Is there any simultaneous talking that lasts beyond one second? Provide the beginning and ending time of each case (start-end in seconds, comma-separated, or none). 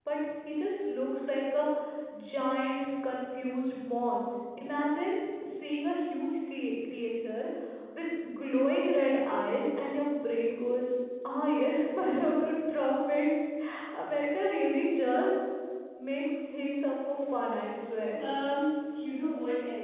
none